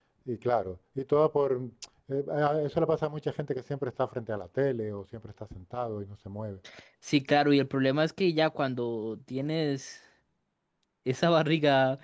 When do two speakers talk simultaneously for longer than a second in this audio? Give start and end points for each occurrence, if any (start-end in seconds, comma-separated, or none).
none